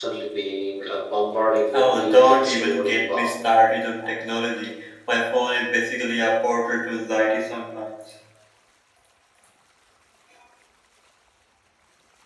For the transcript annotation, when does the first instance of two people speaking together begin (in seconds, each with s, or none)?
1.7 s